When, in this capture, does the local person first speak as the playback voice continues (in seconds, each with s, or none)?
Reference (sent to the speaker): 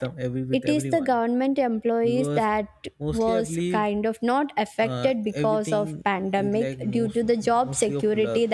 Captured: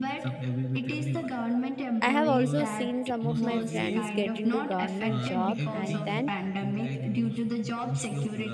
2.0 s